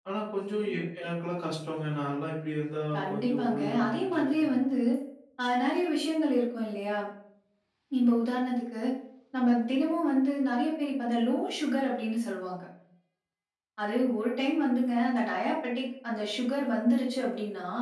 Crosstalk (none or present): present